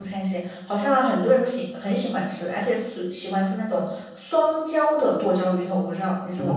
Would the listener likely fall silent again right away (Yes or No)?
No